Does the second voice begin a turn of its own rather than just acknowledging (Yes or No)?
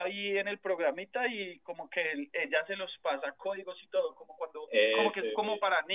No